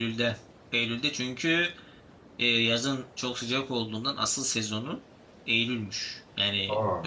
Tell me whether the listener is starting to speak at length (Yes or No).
No